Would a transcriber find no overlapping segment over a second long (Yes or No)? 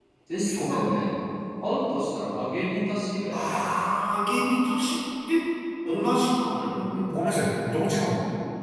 Yes